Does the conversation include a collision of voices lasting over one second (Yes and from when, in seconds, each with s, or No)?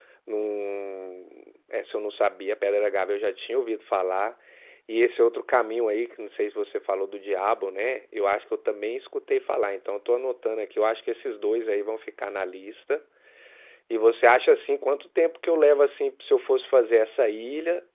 No